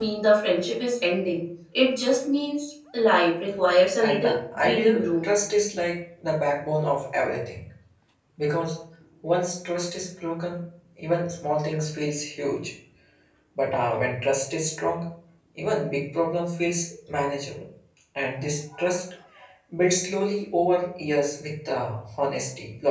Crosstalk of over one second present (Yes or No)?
Yes